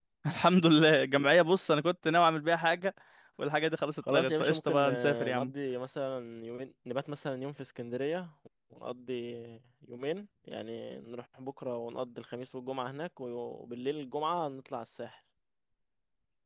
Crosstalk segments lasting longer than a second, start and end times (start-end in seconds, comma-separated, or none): 4.1-5.5